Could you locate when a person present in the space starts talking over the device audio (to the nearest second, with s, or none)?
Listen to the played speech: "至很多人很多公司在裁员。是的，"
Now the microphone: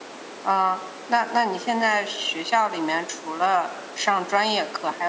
0 s